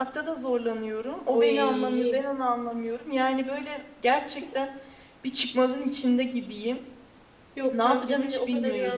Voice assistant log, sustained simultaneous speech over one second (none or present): present